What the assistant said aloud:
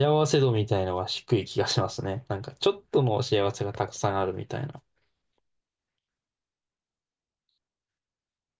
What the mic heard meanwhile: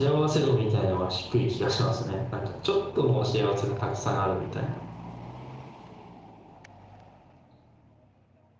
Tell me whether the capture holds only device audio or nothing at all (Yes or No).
Yes